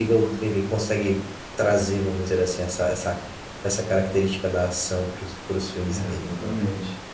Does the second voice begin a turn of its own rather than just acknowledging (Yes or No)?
Yes